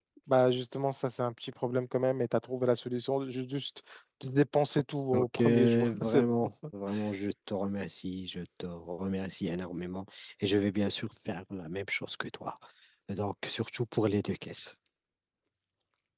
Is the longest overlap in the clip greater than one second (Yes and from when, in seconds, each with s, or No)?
Yes, from 5.1 s